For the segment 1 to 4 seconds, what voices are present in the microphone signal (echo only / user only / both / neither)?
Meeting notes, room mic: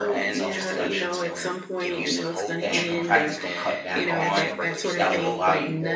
both